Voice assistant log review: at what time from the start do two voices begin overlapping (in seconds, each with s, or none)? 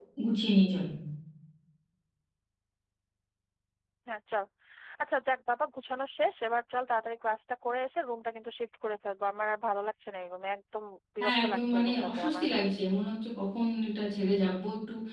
11.2 s